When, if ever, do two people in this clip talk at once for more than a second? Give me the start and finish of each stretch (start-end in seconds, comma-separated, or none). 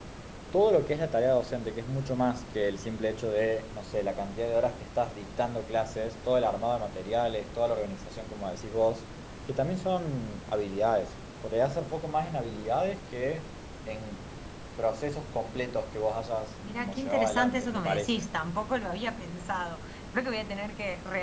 16.8-18.2